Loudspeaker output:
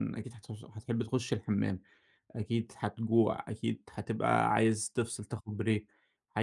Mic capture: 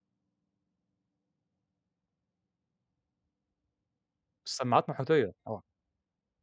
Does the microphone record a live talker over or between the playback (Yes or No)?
Yes